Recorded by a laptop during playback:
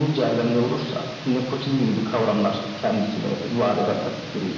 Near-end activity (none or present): none